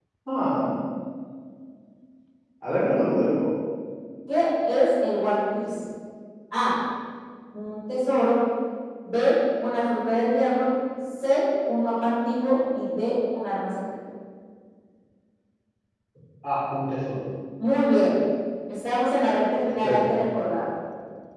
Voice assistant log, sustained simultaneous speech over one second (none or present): none